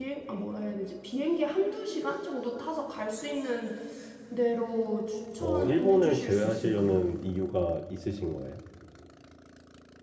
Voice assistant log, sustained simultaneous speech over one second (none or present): present